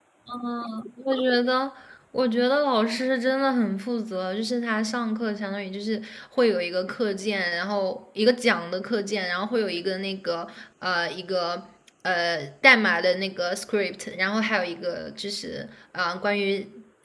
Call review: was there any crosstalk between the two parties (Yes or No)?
No